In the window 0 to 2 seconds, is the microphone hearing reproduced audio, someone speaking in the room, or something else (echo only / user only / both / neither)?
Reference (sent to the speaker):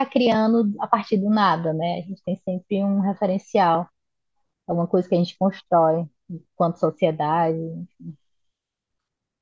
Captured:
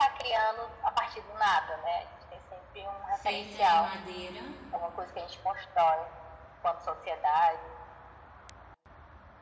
echo only